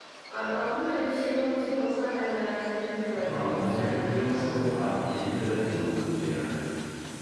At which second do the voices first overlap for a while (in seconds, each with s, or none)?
3.1 s